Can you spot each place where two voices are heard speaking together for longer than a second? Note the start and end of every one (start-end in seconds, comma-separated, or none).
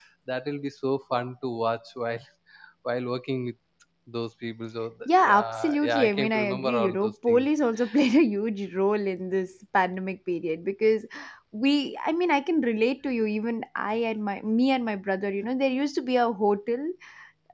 5.2-7.5